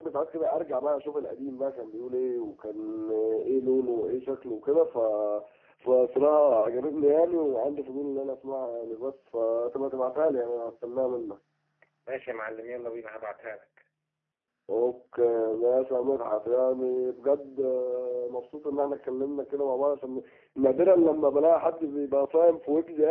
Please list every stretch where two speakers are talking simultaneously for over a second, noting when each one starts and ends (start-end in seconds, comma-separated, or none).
none